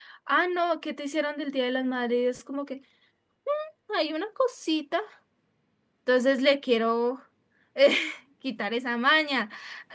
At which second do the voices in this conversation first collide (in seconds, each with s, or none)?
none